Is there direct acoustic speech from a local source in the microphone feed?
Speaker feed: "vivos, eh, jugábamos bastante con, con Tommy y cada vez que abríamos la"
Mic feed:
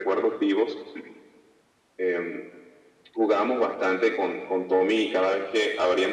No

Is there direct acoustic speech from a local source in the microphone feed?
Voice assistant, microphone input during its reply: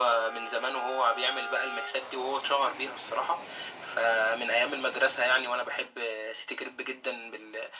No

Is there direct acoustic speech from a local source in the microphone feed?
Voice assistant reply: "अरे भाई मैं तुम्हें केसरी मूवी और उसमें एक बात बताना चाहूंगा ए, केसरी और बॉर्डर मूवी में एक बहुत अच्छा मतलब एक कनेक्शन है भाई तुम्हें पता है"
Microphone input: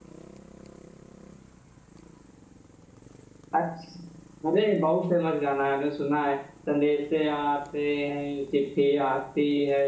Yes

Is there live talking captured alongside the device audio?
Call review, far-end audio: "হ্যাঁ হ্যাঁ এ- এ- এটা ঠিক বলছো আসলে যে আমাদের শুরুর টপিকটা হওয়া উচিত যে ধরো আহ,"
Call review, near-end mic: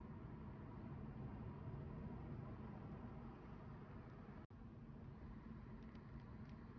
No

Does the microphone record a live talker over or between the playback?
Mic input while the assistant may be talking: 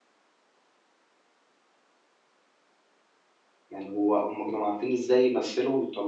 Yes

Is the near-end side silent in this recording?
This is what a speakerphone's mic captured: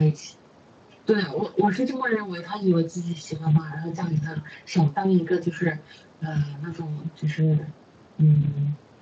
Yes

